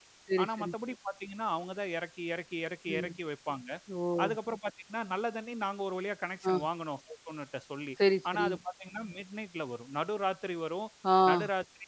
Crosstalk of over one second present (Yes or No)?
No